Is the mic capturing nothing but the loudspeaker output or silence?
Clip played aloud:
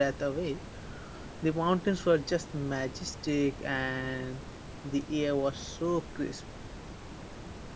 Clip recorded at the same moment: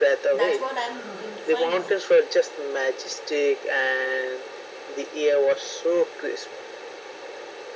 No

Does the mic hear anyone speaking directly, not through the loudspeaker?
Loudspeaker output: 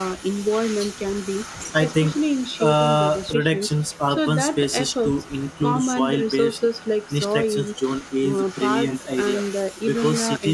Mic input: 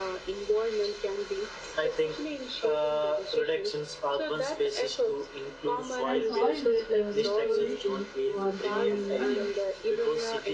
Yes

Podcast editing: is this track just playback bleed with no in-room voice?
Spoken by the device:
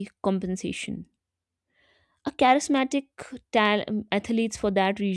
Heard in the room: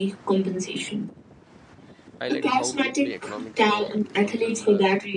No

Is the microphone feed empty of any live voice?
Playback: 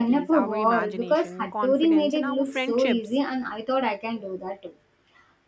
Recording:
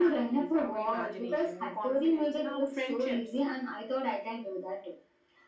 Yes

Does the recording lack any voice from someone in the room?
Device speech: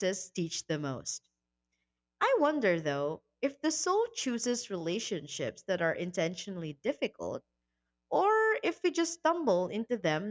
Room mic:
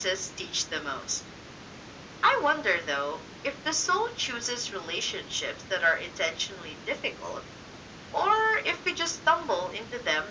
Yes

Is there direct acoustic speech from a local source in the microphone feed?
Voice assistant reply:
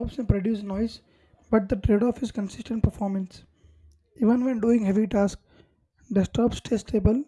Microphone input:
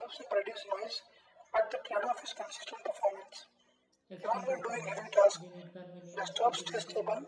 Yes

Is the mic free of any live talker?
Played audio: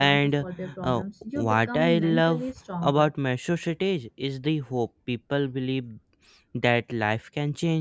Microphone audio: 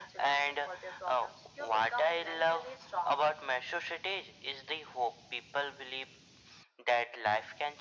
Yes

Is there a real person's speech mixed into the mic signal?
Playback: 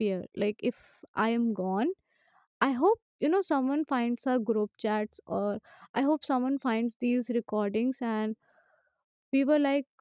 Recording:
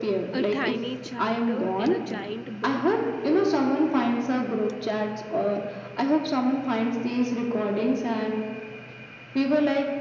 Yes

